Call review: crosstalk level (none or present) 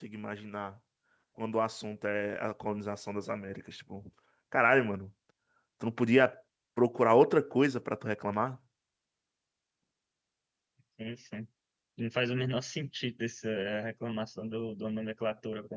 none